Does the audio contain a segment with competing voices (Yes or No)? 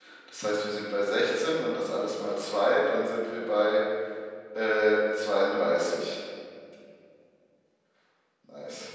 No